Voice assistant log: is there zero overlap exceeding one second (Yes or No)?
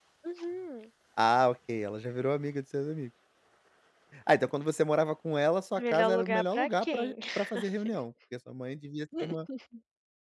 No